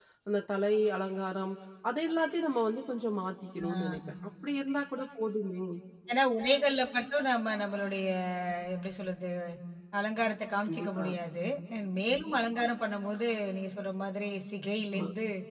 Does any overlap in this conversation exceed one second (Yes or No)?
No